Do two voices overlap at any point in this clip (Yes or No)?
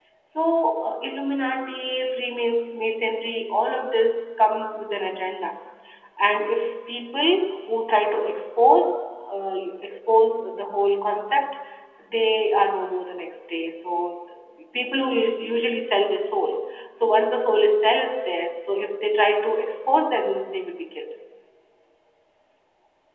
No